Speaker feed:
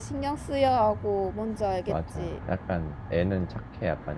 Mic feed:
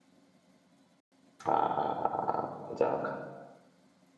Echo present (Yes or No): No